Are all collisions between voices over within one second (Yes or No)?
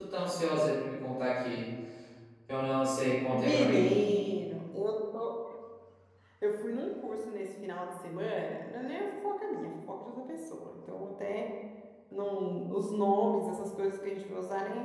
Yes